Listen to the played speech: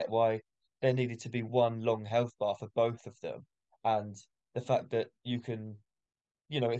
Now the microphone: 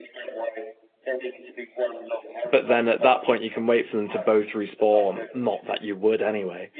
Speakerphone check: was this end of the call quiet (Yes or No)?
No